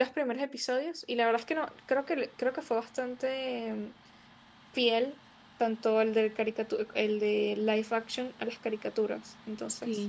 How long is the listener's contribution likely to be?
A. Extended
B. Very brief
A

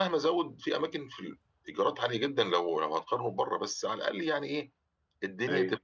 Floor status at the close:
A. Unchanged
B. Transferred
A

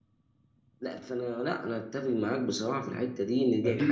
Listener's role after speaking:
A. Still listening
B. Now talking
B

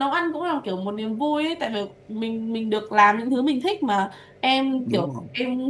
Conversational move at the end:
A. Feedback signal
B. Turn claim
A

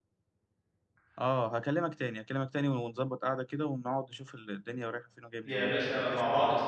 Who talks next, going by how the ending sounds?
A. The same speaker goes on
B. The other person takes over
B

